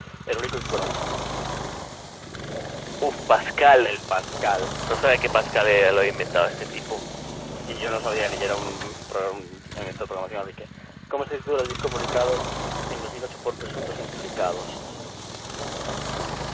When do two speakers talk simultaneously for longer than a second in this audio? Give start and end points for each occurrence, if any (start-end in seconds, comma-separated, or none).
none